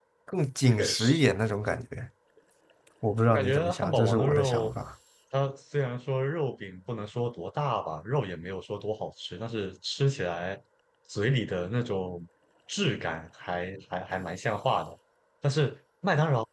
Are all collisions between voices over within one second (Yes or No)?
No